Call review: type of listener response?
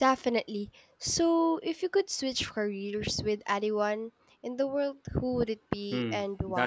taking over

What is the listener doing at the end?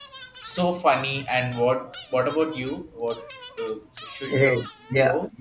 taking over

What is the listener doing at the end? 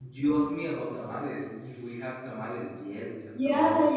taking over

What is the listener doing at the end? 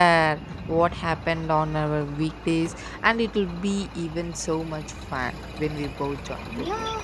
taking over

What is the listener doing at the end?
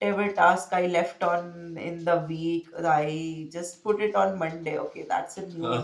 listening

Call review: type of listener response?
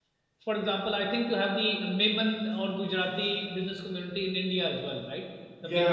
taking over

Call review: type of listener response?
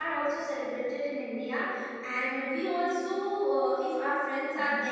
listening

